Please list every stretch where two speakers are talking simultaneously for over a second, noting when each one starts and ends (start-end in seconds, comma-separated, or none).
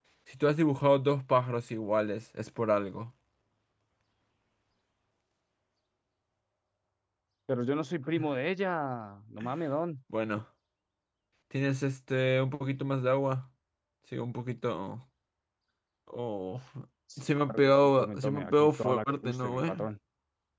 17.2-19.7